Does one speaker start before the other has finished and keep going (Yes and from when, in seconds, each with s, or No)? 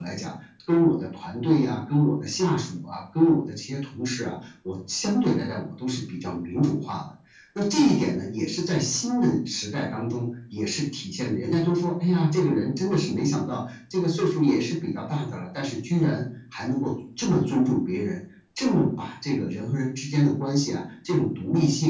No